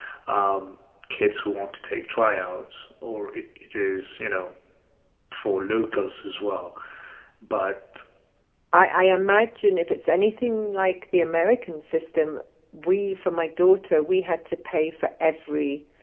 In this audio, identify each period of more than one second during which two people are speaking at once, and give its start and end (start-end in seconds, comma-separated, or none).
none